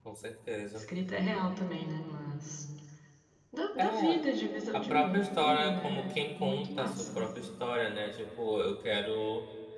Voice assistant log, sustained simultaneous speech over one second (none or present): present